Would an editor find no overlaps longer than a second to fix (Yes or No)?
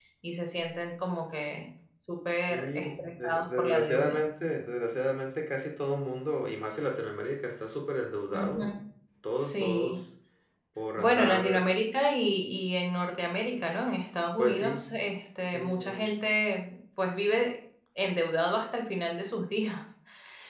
No